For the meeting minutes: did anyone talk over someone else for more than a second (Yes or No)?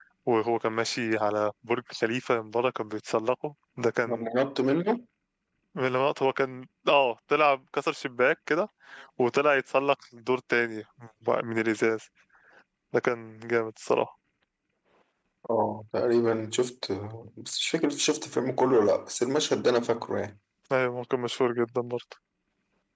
No